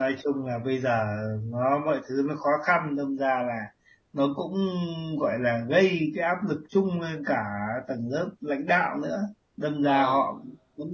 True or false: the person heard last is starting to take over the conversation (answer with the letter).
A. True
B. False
B